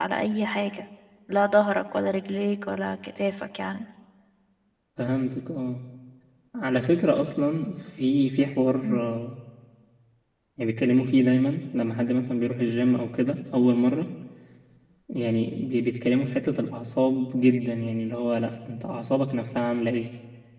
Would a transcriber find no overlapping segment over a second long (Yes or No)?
Yes